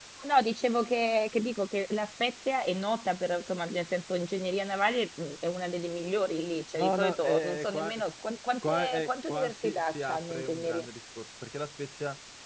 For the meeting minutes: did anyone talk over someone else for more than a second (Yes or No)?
Yes